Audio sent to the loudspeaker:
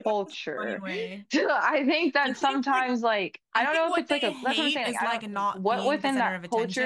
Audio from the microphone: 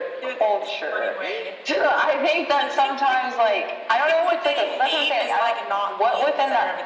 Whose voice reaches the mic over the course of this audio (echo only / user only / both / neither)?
echo only